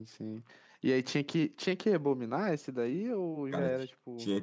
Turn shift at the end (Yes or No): Yes